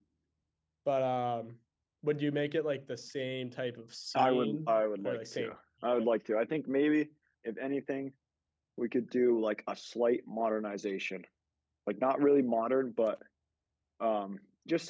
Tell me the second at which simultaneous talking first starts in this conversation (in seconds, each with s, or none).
4.1 s